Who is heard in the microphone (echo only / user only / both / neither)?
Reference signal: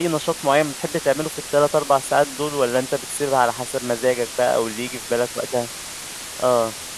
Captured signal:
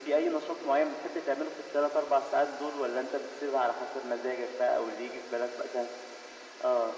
echo only